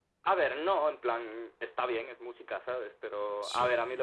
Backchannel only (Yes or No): Yes